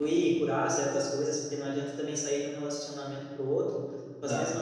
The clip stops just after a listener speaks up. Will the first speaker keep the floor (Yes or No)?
Yes